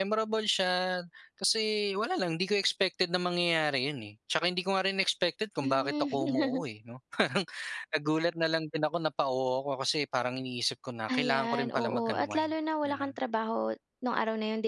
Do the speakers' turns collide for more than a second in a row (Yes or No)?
Yes